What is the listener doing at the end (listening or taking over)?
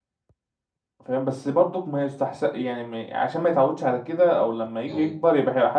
listening